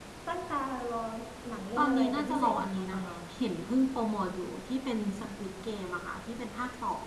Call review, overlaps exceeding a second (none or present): present